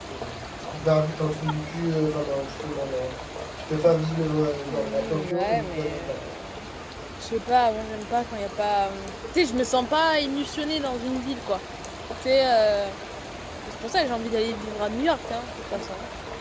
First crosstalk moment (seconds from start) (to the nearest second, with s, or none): 5 s